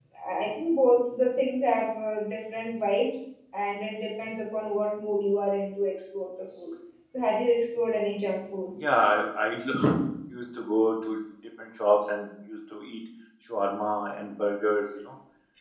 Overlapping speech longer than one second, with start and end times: none

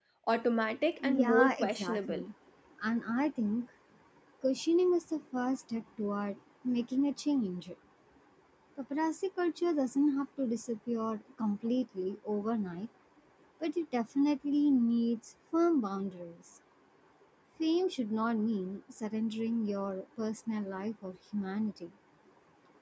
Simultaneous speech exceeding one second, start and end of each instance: 1.0-2.2

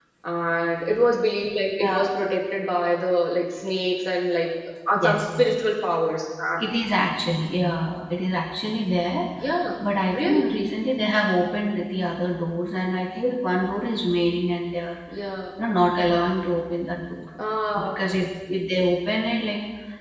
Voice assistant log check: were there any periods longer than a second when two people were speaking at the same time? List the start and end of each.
none

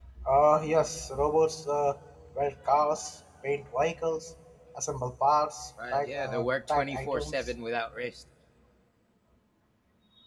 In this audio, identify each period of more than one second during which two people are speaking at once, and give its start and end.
5.9-7.6

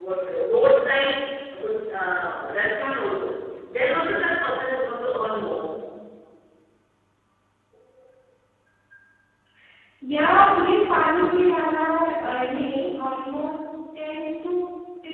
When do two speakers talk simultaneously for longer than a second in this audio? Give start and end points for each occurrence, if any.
none

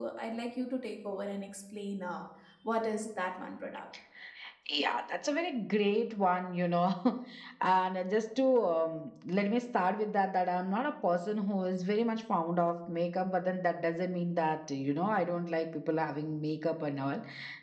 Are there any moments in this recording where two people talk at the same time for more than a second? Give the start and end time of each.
none

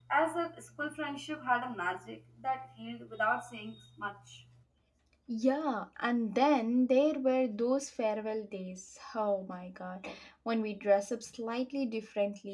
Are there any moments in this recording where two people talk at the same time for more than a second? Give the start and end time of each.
none

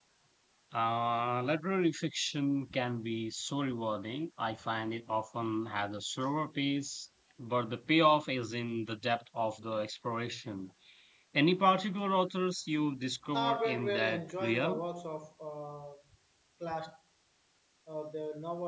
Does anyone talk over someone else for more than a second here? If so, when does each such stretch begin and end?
13.3-14.8

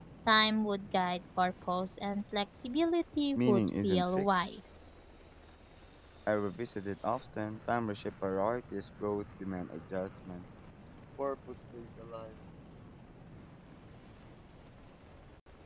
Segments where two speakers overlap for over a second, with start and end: 3.4-4.6

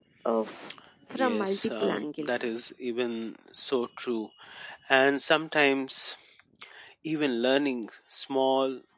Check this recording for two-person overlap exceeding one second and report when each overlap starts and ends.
1.2-2.4

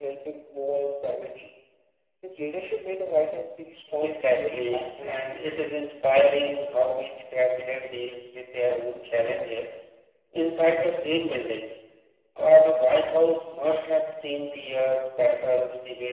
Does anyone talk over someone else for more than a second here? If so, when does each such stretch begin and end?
4.0-5.4

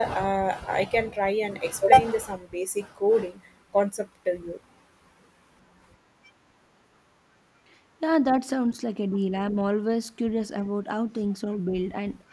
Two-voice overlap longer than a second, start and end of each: none

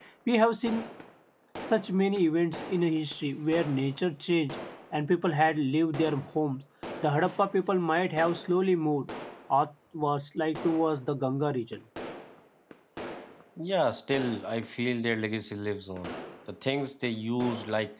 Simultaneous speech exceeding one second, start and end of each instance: none

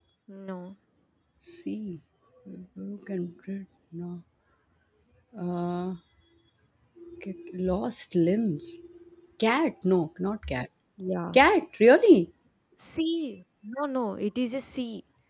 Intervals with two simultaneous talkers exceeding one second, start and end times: none

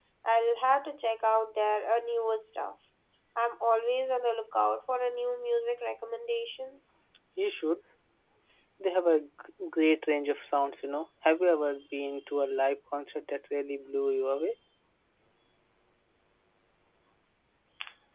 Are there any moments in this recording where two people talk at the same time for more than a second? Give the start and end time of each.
none

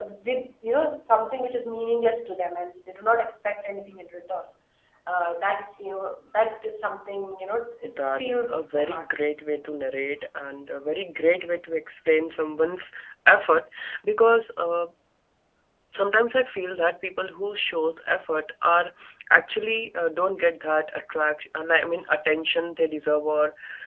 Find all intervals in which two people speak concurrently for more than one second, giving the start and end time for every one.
7.8-9.1

